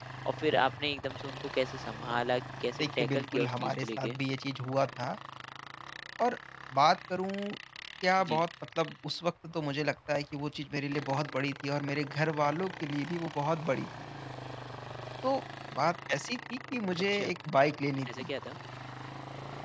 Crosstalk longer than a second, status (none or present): present